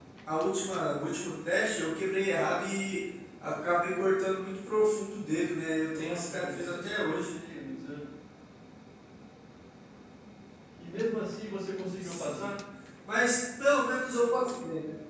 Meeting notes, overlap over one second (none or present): present